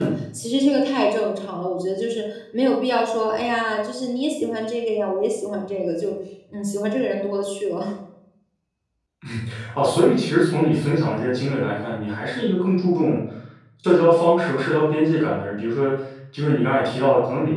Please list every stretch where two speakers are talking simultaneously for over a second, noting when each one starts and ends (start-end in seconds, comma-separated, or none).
none